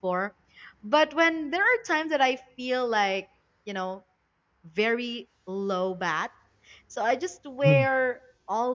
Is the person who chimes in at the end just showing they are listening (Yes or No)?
Yes